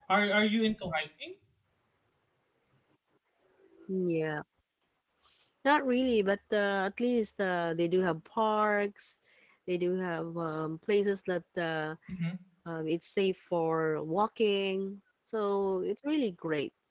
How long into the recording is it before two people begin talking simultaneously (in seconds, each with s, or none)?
none